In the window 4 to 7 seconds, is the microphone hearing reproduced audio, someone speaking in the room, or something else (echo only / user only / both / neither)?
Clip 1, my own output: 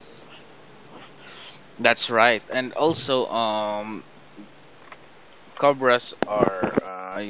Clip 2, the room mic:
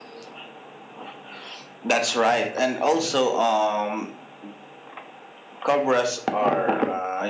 echo only